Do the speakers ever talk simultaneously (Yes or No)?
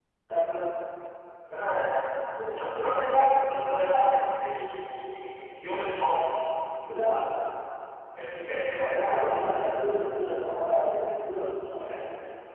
Yes